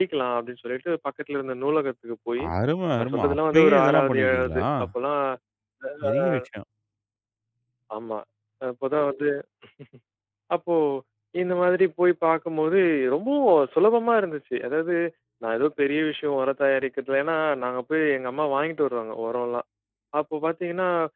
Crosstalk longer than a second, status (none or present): present